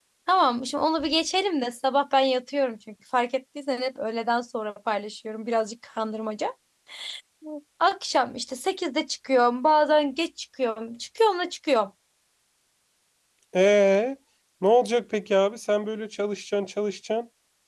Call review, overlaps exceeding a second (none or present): none